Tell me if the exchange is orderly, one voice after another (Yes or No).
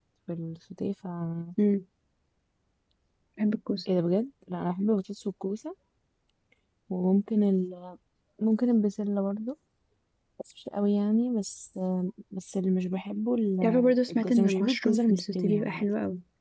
No